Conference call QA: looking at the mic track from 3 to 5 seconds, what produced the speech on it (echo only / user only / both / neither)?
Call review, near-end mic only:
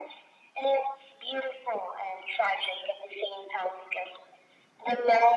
echo only